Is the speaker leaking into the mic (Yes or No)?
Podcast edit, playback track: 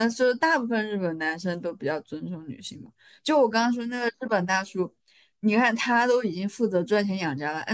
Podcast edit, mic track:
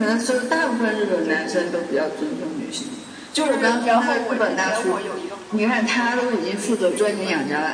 Yes